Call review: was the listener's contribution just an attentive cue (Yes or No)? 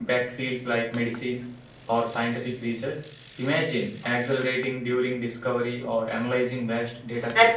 No